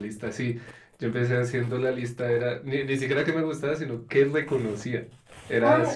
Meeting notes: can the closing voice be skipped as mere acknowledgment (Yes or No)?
No